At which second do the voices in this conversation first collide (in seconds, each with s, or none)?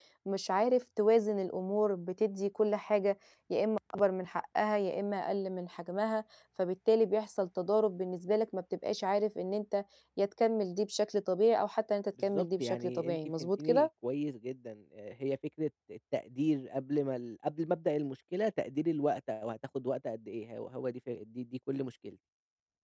12.2 s